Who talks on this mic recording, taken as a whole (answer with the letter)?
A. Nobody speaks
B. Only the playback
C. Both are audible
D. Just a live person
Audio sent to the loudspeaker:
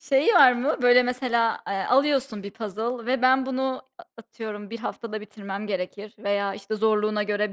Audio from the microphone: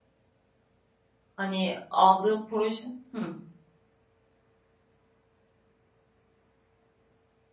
D